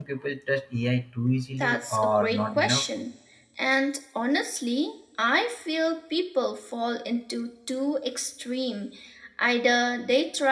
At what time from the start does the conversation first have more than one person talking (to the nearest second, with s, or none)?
2 s